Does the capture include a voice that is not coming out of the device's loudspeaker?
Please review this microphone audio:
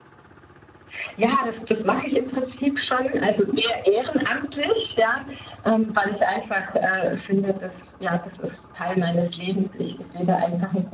No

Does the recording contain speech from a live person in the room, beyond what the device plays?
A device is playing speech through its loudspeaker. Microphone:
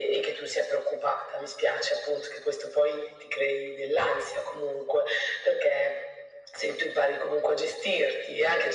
No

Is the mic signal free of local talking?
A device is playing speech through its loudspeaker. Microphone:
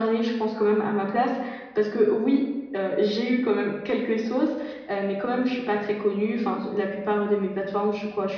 Yes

